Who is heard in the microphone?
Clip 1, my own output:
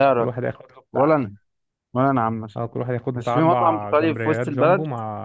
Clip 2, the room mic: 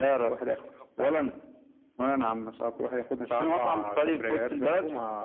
echo only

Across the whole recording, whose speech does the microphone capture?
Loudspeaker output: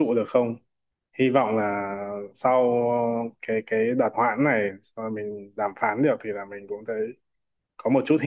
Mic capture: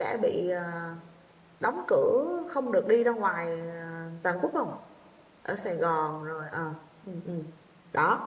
user only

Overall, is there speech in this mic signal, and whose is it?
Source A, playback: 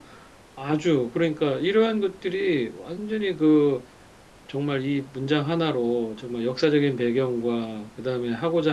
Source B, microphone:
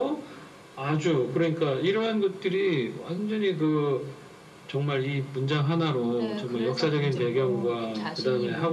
both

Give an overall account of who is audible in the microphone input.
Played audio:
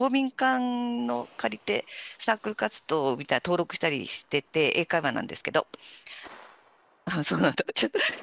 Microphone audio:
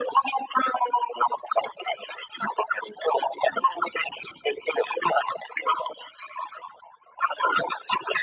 echo only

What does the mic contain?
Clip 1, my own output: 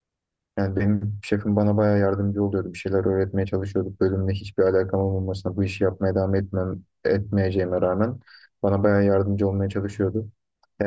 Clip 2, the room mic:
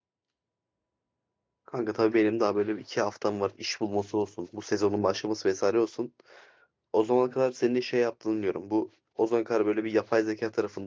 user only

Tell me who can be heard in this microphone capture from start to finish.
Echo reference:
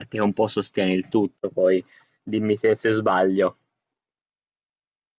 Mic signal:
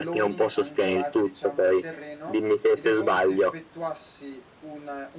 both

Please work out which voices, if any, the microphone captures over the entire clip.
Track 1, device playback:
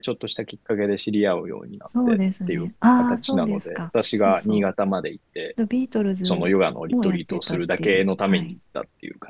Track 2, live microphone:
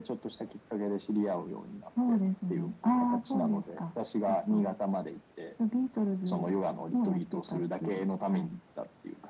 echo only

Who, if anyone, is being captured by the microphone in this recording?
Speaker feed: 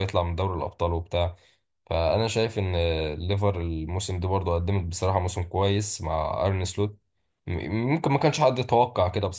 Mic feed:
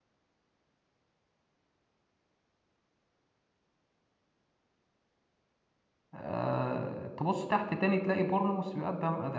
user only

